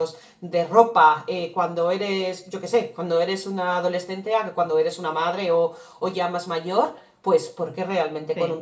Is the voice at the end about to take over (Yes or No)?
No